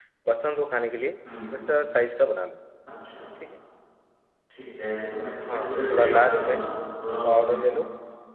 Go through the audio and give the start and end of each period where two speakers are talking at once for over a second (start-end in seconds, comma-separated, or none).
5.4-6.7